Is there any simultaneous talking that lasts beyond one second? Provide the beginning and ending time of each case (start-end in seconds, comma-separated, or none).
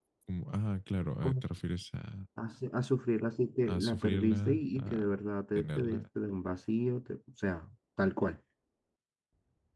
3.7-5.2